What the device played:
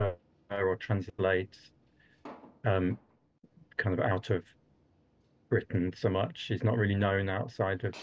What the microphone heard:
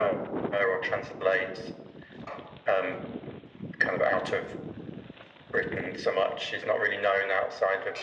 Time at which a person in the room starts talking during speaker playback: none

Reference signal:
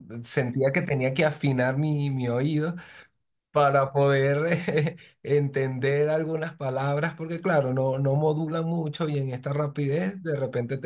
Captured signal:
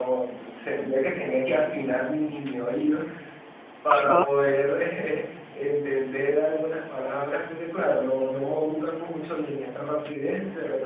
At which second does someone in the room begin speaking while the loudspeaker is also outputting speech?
3.9 s

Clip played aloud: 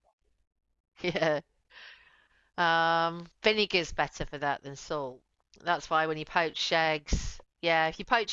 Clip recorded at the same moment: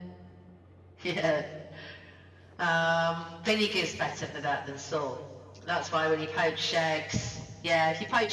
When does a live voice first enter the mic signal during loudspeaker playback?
none

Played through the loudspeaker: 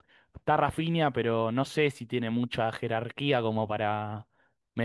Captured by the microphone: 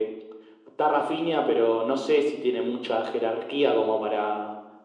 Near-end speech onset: none

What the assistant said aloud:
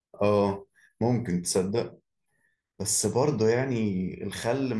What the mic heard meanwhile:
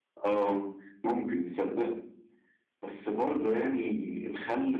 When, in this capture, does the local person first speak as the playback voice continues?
none

